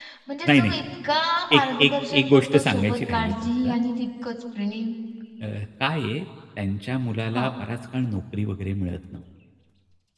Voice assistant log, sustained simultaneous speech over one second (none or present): present